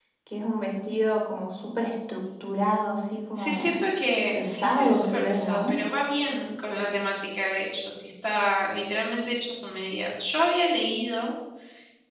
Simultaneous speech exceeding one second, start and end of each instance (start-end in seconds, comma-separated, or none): 4.4-5.8